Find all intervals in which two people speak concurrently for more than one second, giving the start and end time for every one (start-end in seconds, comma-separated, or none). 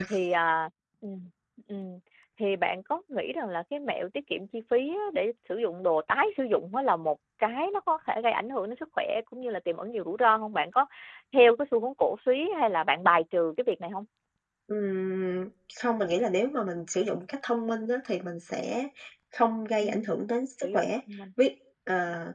none